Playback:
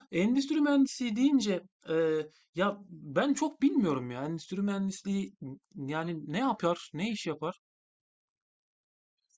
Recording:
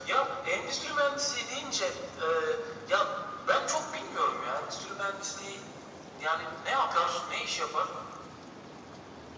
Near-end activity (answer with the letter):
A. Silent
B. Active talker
A